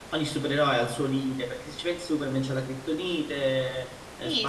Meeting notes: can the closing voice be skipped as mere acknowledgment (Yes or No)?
No